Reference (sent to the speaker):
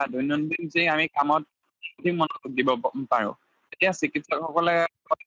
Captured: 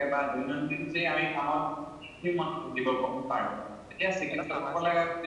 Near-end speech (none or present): present